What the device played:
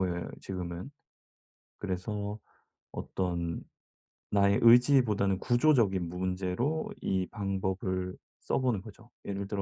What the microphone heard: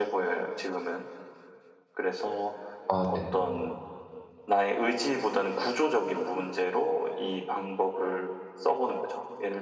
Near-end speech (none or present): present